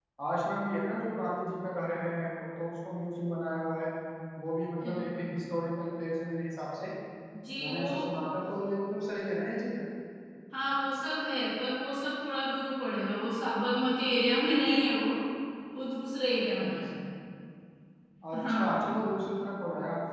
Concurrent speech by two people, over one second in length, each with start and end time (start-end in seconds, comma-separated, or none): none